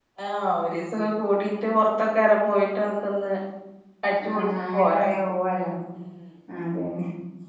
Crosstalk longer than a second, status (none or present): none